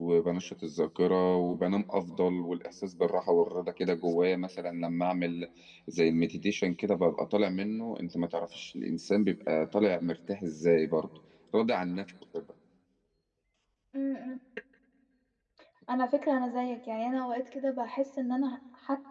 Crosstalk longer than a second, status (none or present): none